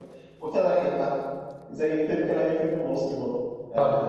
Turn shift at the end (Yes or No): No